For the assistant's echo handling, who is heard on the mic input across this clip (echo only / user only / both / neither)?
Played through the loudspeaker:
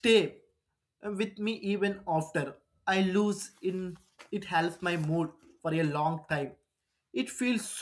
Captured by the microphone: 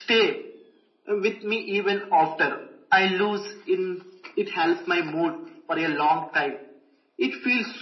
echo only